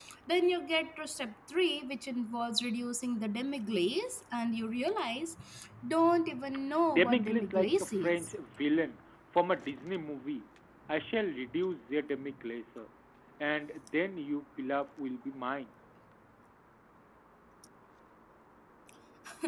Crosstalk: present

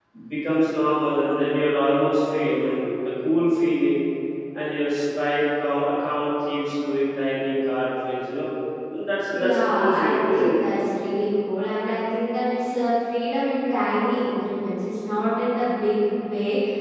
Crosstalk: present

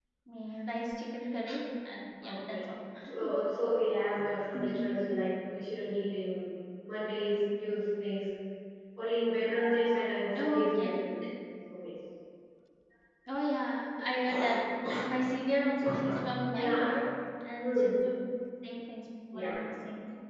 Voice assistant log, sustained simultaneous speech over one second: none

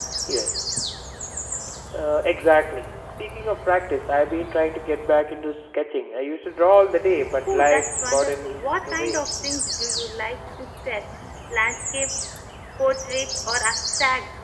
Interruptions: present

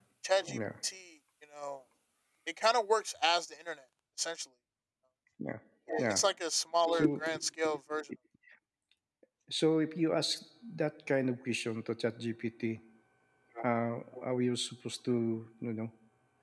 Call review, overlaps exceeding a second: none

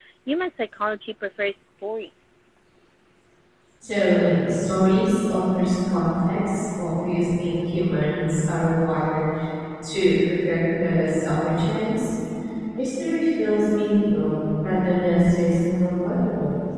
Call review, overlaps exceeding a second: none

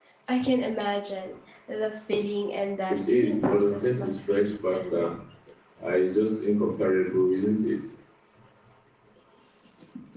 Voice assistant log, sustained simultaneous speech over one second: present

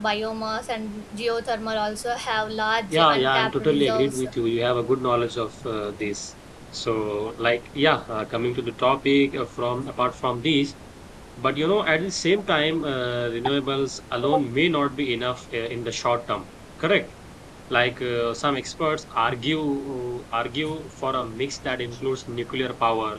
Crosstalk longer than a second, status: present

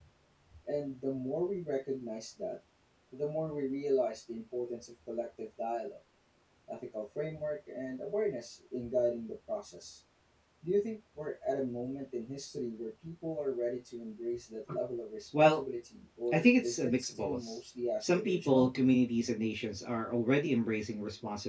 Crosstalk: present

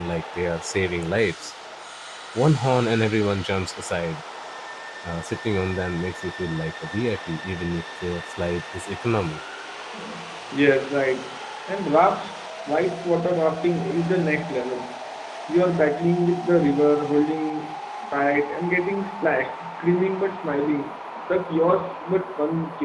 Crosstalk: none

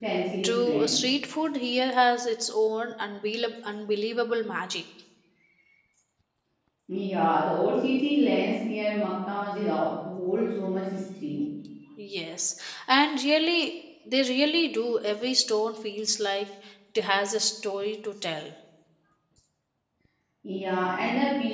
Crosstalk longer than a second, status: none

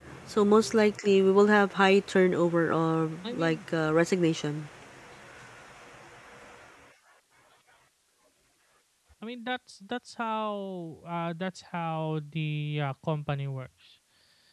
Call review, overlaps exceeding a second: none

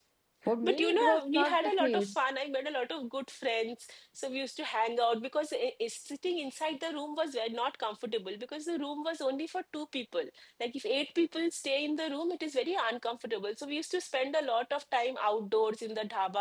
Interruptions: present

